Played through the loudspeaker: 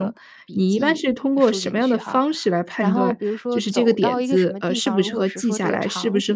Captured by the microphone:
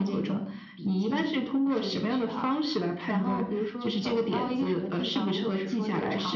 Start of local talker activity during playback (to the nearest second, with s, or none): none